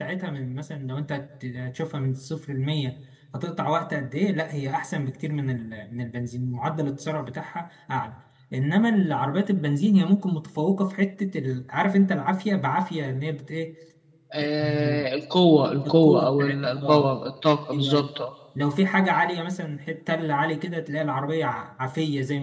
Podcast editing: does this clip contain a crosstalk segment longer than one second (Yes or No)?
Yes